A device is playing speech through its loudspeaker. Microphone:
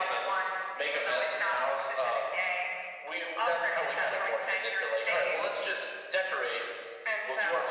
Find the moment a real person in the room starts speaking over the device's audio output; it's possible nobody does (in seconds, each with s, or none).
none